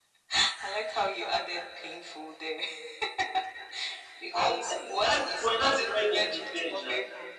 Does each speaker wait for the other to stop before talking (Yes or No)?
No